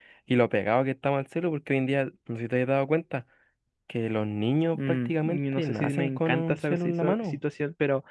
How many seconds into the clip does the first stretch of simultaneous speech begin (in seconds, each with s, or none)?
4.7 s